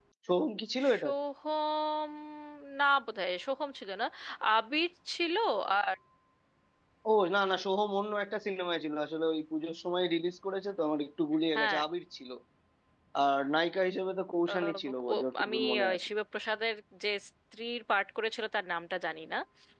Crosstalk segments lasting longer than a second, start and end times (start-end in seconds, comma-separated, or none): 14.5-16.0